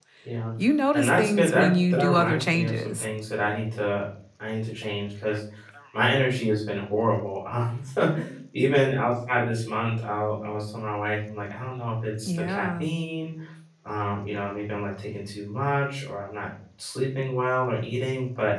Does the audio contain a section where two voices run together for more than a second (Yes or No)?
Yes